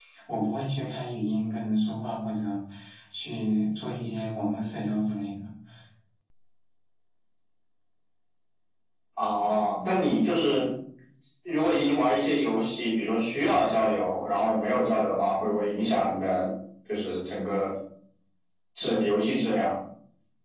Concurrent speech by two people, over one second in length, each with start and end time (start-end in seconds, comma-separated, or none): none